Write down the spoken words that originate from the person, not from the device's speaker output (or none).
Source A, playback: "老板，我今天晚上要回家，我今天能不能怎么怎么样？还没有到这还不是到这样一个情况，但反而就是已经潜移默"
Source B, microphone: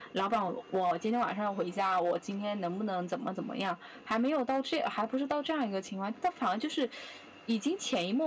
none